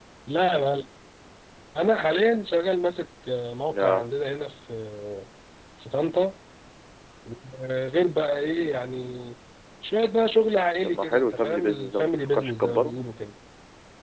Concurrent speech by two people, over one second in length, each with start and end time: 10.8-13.0

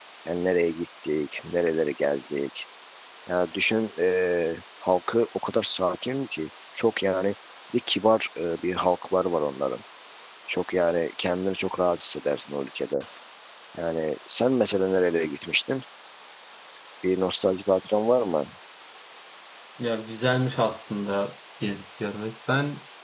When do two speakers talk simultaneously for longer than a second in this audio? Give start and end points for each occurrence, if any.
none

